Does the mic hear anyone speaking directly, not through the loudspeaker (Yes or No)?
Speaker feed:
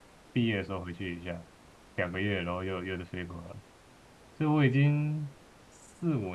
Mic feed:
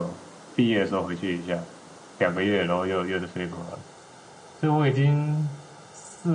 No